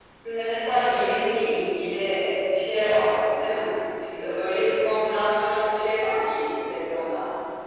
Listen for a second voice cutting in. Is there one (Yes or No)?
No